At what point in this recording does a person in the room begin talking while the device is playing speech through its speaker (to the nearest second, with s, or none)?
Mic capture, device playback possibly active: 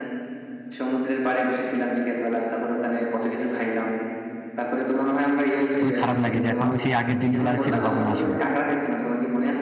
6 s